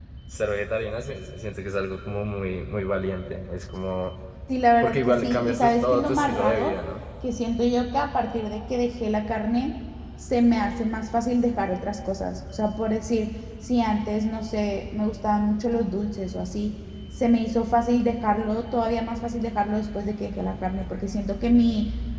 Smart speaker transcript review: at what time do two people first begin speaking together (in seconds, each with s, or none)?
4.8 s